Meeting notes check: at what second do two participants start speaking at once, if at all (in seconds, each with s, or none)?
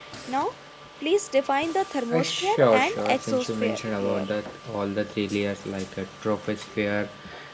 2.1 s